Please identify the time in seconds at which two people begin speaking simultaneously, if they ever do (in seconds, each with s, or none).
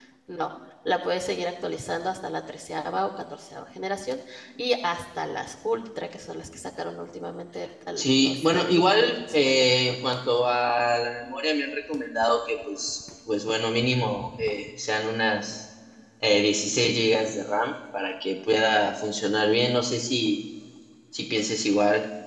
8.0 s